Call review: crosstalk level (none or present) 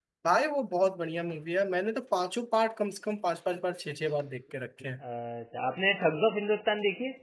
none